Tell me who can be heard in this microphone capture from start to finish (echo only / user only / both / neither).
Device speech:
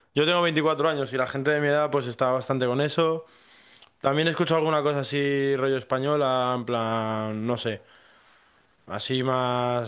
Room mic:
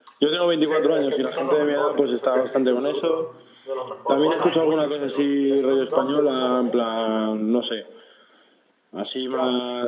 both